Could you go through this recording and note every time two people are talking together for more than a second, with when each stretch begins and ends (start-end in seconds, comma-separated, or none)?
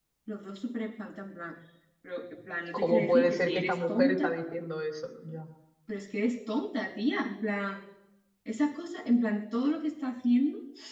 2.7-4.3